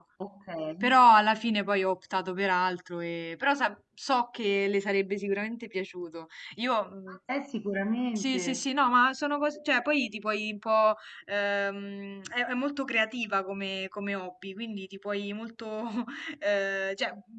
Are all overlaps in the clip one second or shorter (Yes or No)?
Yes